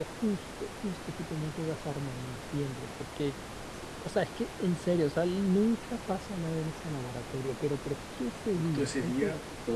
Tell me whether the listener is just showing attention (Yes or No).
No